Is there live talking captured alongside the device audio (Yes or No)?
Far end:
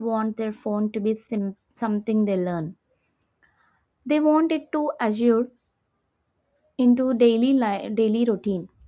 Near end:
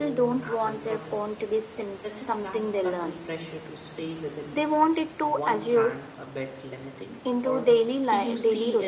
Yes